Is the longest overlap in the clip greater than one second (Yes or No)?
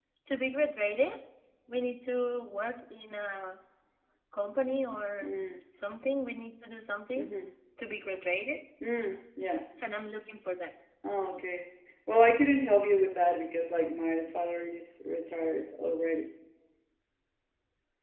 No